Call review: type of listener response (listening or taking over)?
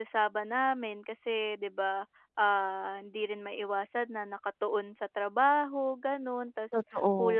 listening